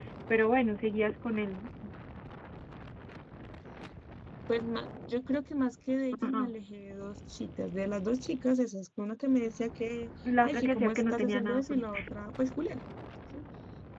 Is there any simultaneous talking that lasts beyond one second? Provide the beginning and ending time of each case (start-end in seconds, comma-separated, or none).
10.4-11.9